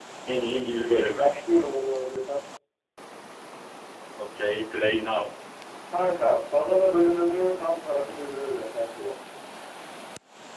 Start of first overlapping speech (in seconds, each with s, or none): none